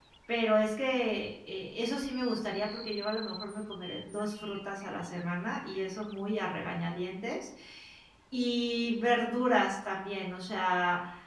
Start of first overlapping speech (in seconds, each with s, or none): none